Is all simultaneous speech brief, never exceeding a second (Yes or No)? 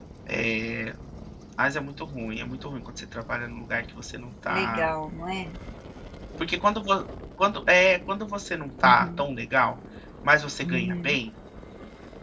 Yes